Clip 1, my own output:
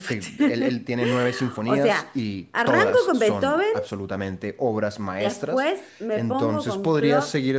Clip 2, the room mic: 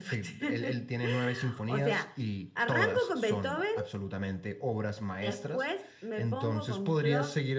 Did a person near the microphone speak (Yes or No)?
No